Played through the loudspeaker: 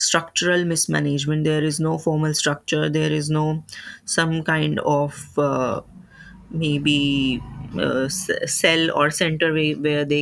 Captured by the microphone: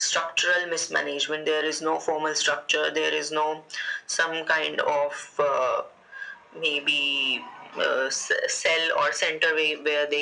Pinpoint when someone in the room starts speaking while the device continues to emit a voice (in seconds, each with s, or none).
none